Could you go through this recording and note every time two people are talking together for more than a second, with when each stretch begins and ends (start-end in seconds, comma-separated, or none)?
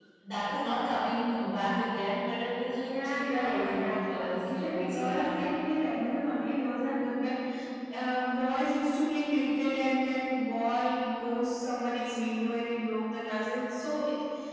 2.8-5.5